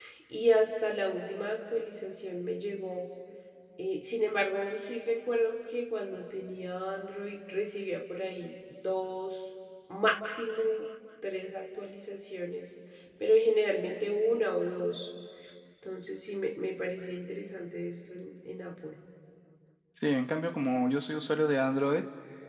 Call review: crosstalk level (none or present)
none